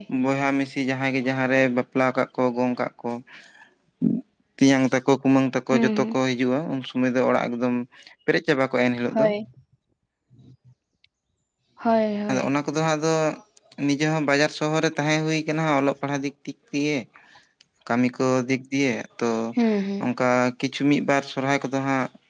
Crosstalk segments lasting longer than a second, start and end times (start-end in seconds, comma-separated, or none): none